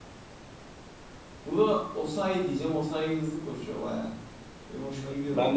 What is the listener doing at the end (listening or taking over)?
taking over